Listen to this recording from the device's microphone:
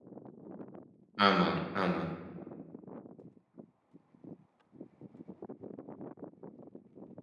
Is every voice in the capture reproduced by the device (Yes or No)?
No